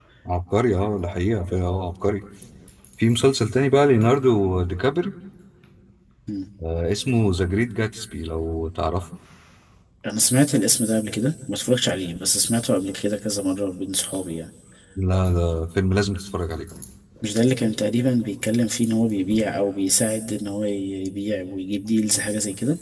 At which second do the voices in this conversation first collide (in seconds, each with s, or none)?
none